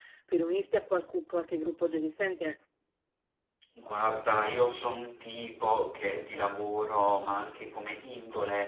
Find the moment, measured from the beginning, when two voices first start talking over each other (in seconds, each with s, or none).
none